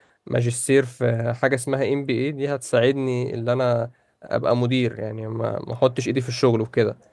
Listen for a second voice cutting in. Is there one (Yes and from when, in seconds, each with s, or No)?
No